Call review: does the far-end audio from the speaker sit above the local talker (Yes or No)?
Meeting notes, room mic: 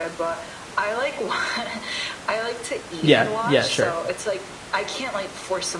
No